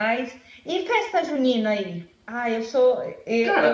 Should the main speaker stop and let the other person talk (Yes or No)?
No